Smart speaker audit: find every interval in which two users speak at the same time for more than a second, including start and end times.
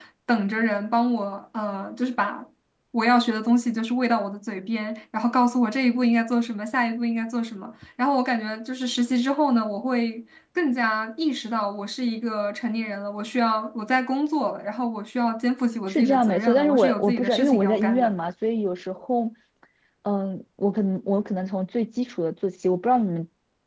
15.9-18.1

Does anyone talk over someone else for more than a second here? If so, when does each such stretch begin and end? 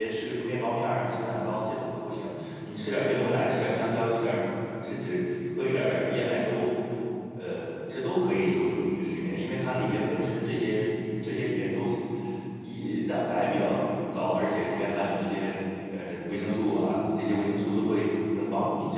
none

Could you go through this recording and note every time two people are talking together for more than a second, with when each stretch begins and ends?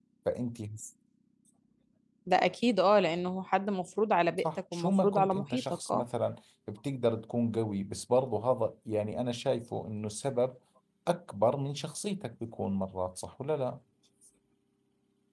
4.4-6.0

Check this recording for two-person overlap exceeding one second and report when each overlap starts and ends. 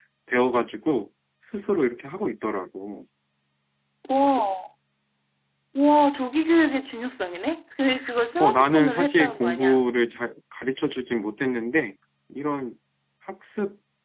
8.4-9.8

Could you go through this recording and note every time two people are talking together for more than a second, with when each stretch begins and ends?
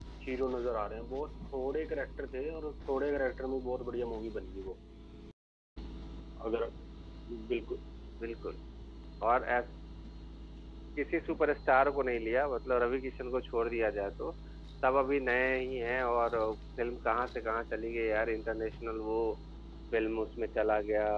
none

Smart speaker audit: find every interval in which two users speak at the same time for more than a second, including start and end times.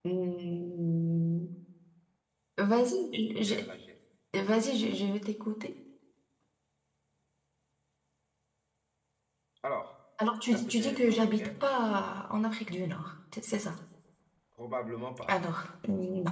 10.5-11.9

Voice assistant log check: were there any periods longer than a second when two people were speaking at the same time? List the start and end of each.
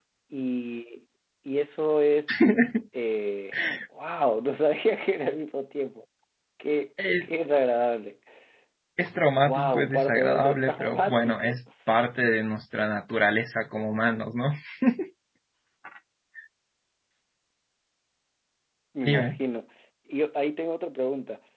9.5-11.6

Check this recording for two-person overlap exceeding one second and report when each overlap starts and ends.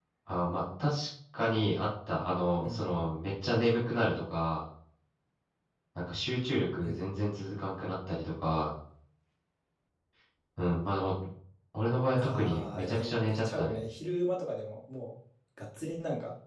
12.2-13.8

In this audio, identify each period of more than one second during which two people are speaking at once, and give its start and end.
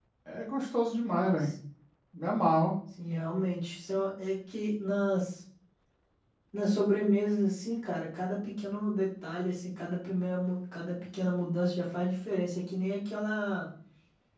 none

